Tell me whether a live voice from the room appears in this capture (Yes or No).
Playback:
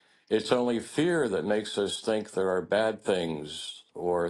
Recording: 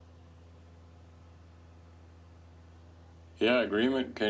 Yes